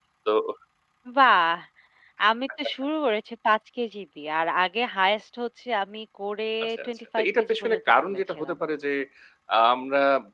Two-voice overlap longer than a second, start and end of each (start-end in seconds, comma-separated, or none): 6.6-8.6